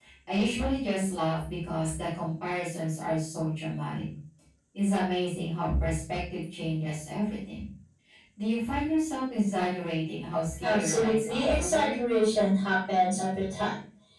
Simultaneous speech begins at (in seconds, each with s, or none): 10.6 s